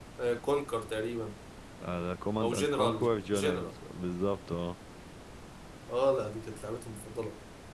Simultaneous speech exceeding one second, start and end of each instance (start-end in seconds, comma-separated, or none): 2.4-3.7